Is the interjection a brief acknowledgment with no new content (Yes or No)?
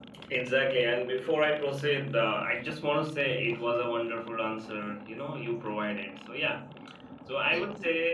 Yes